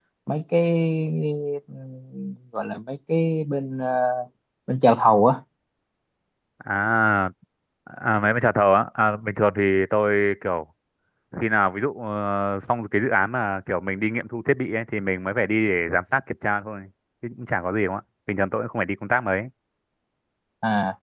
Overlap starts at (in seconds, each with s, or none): none